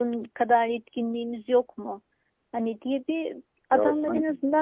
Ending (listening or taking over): listening